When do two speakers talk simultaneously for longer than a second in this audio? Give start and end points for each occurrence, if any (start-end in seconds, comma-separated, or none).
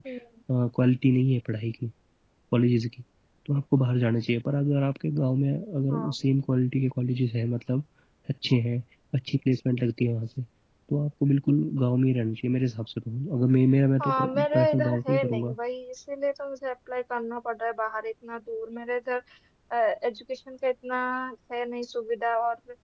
14.0-15.6